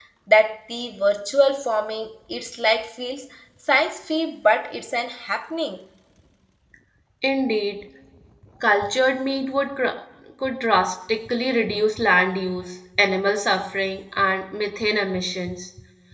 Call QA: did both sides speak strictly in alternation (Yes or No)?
Yes